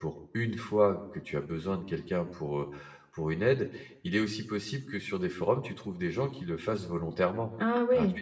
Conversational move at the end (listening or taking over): taking over